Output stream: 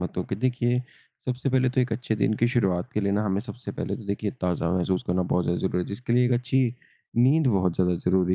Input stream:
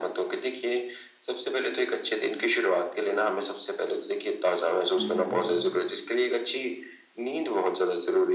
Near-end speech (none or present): present